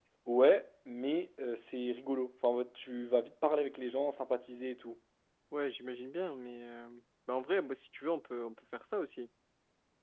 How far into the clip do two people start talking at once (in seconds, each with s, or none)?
none